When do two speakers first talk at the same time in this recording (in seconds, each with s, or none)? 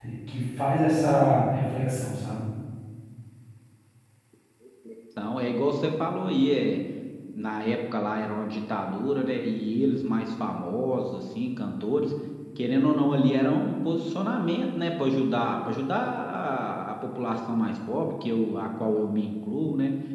none